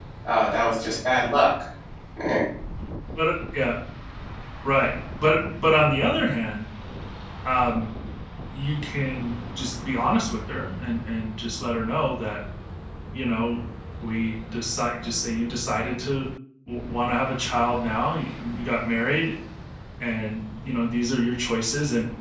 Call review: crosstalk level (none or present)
none